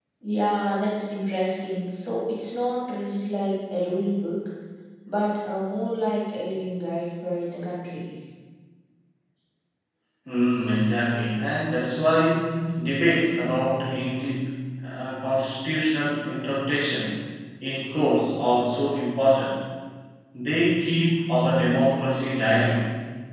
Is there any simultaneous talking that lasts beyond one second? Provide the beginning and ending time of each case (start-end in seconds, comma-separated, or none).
none